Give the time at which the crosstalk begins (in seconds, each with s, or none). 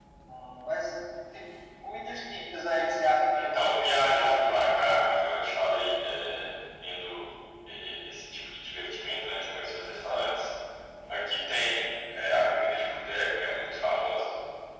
3.3 s